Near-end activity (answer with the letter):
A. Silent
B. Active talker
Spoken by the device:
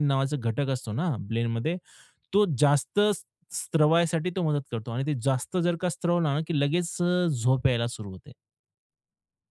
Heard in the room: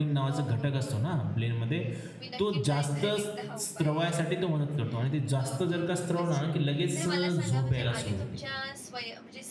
B